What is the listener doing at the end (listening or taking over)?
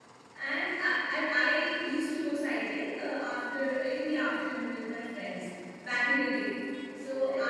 listening